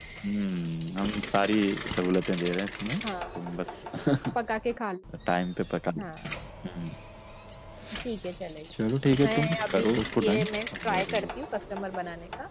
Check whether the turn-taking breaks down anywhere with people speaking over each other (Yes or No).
Yes